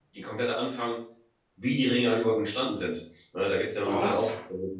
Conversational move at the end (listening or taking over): listening